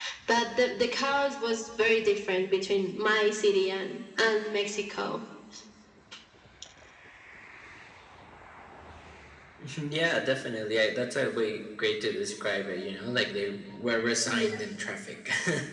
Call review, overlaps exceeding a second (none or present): none